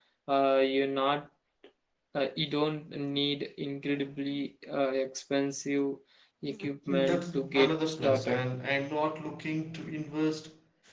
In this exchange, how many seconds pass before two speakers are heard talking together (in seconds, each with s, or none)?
6.9 s